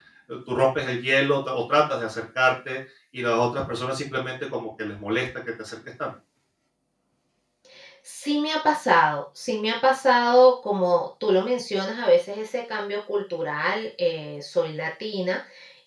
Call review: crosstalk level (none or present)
none